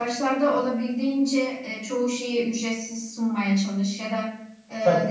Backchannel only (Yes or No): Yes